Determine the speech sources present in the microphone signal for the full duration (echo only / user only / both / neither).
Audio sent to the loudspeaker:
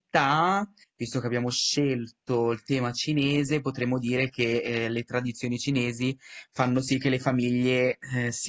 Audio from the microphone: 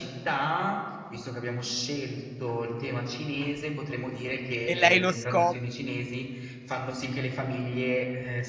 both